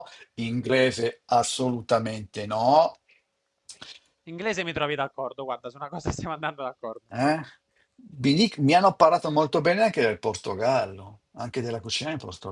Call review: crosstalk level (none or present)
none